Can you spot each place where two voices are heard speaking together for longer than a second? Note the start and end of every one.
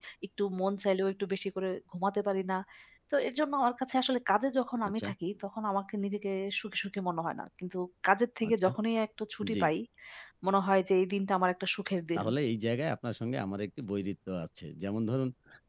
none

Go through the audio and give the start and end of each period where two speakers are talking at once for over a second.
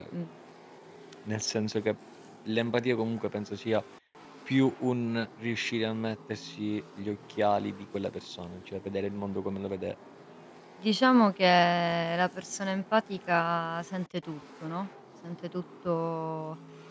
none

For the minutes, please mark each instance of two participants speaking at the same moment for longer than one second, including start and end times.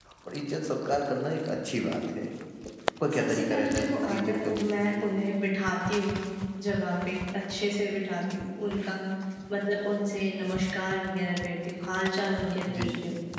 3.2-4.9

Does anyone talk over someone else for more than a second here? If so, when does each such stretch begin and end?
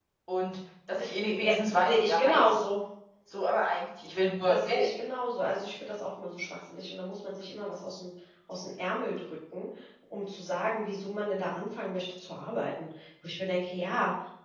1.4-2.6

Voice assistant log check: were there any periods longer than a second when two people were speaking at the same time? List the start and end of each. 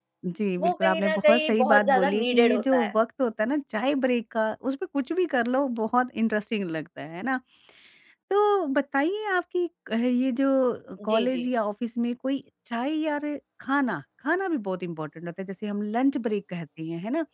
0.6-2.9

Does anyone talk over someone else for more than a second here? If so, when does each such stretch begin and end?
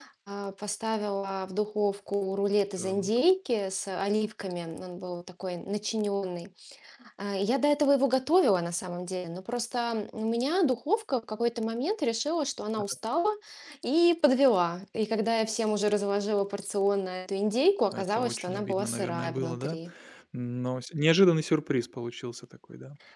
17.9-19.8

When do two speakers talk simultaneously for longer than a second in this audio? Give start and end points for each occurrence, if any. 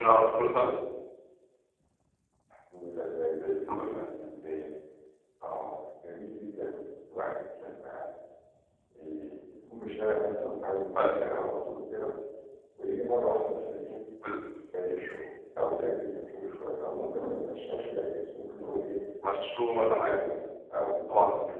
none

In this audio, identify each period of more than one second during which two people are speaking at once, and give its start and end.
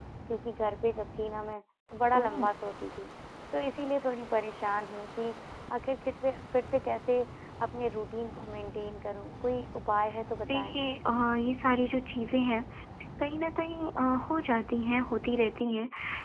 none

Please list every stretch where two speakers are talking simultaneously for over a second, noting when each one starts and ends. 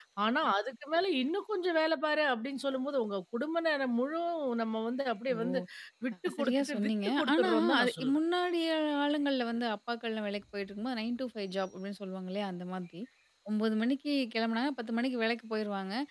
6.3-8.2

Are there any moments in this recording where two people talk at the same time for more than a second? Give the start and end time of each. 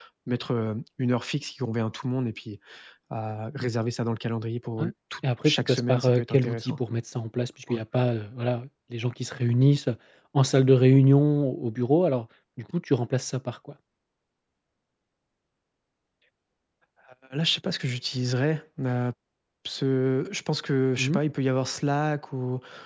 5.4-6.7

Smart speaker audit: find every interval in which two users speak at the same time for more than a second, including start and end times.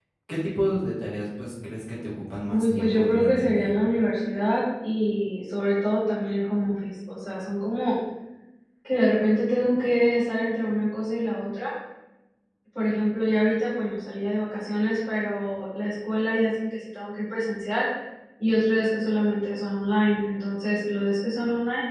2.5-3.7

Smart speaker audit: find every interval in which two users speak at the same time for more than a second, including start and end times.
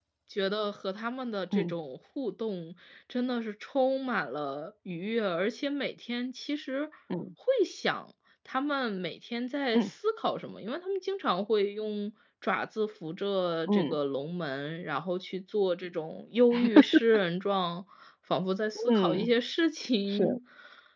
none

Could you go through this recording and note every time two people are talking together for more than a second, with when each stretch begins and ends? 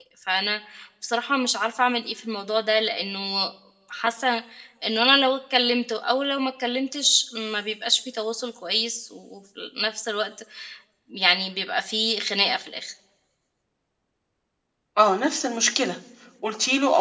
none

